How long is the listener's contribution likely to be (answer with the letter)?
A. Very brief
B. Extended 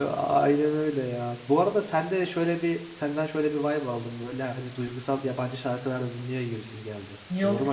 B